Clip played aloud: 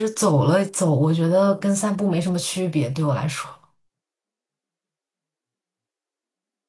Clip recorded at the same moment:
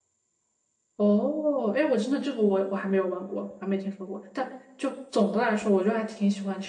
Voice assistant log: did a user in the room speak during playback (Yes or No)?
Yes